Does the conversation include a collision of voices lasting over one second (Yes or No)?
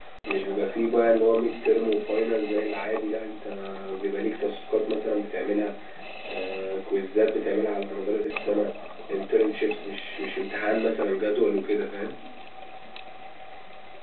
No